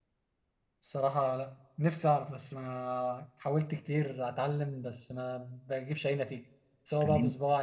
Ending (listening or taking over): listening